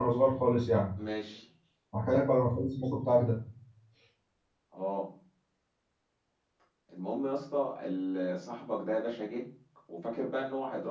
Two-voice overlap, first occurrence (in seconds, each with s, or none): none